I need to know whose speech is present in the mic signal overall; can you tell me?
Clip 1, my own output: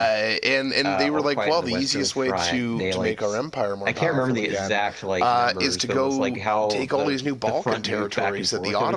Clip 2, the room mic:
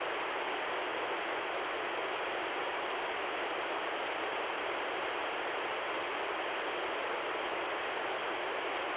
neither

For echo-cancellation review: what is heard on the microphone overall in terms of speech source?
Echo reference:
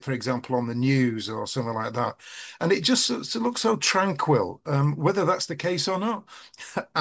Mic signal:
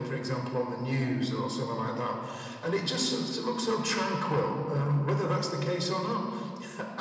echo only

